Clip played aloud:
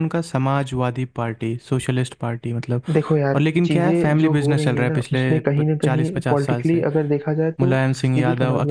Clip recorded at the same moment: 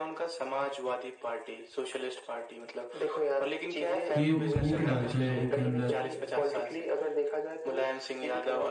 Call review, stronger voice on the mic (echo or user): user